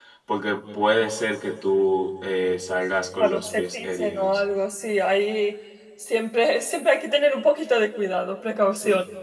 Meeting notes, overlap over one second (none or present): present